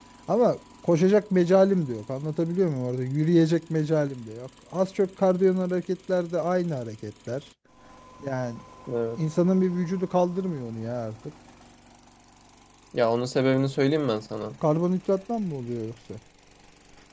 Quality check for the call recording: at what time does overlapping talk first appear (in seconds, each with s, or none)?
none